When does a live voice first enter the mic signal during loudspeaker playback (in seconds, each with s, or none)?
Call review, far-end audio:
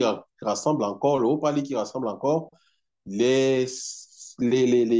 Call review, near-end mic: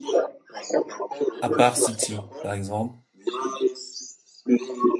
1.4 s